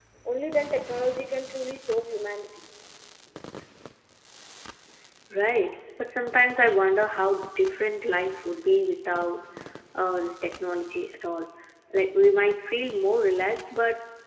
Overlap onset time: none

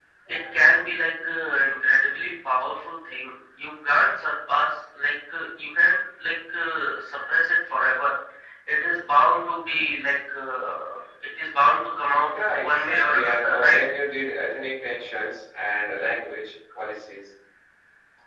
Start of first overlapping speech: 12.3 s

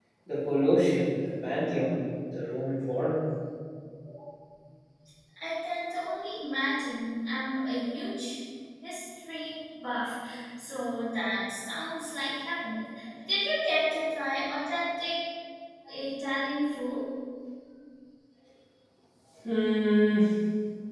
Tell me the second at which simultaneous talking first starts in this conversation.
none

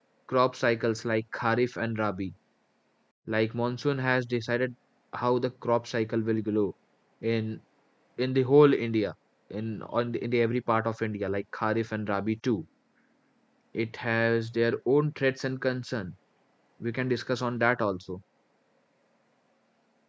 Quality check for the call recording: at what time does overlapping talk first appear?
none

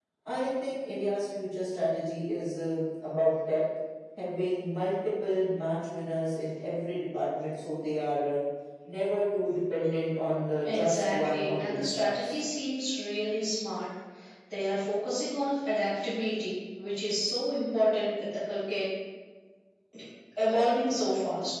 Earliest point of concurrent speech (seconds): 10.7 s

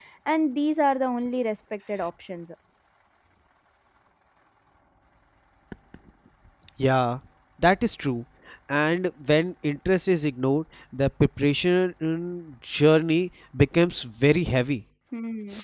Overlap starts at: none

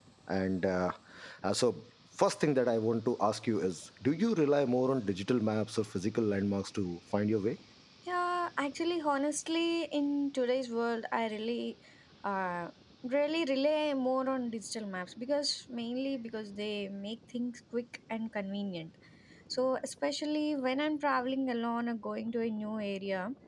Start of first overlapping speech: none

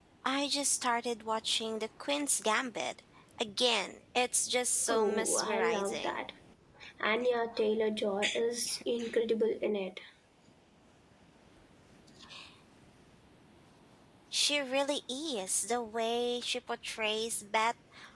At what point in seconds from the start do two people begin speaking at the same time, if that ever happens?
4.9 s

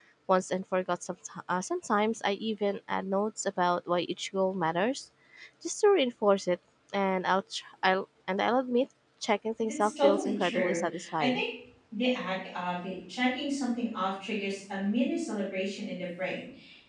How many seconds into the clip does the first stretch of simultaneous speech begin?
9.6 s

